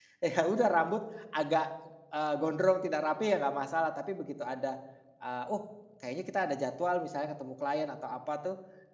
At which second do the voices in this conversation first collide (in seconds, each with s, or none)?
none